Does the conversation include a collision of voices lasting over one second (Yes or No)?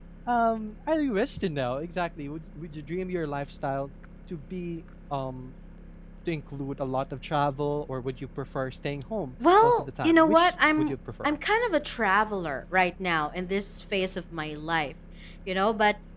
Yes